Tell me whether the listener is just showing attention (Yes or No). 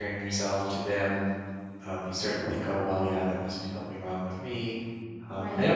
Yes